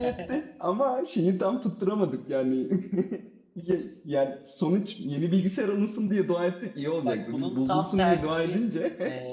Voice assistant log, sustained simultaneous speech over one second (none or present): present